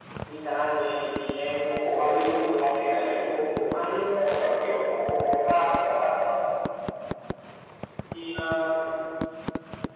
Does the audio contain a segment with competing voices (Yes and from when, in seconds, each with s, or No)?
Yes, from 1.6 s